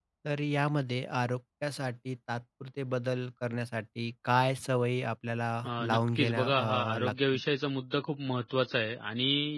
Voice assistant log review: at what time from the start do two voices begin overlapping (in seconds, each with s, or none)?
5.9 s